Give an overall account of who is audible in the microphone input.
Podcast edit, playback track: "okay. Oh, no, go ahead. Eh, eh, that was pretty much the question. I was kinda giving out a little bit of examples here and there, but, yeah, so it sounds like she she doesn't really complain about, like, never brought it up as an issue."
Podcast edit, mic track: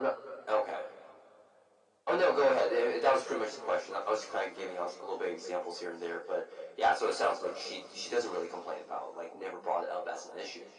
echo only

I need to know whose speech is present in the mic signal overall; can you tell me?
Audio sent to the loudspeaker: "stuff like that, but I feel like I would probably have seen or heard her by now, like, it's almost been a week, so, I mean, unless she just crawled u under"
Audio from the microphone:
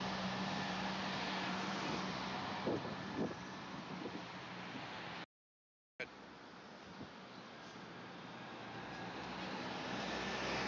neither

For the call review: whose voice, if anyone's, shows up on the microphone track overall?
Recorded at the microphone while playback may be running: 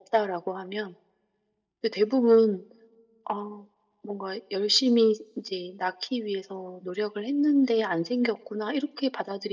echo only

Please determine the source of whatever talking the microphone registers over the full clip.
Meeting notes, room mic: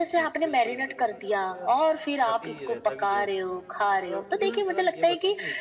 both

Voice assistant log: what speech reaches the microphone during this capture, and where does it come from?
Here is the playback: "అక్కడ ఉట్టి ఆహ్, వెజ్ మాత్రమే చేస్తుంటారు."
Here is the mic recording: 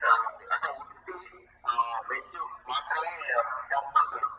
echo only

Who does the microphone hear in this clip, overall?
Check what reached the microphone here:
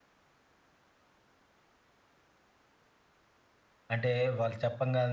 user only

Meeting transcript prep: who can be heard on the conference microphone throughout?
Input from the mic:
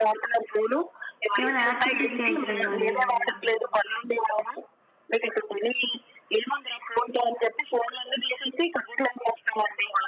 both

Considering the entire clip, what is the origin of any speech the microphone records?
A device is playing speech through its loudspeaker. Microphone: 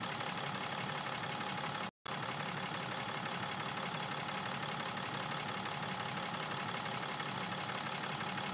neither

